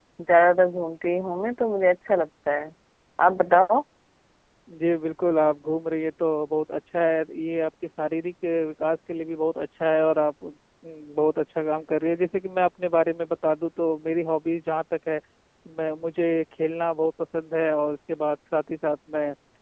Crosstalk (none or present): none